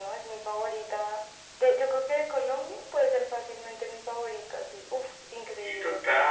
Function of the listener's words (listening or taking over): taking over